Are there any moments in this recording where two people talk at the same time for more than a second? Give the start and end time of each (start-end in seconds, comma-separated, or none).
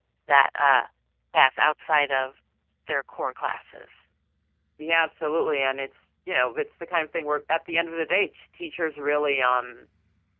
none